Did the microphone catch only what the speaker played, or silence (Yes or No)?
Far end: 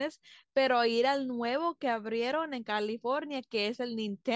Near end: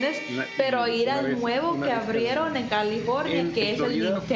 No